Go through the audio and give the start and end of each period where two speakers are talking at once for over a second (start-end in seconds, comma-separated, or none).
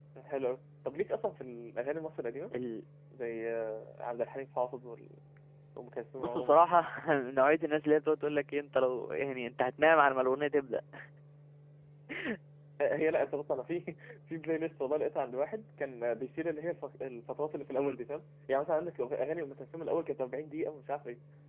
none